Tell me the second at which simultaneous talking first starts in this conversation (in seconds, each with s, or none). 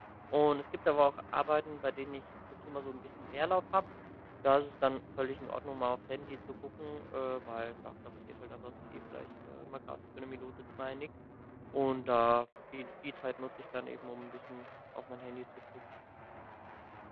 none